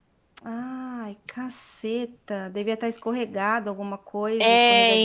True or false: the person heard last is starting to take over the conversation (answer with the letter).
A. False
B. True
B